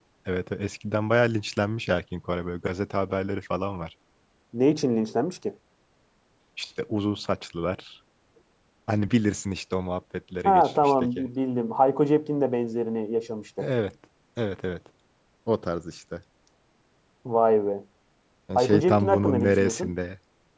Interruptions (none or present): present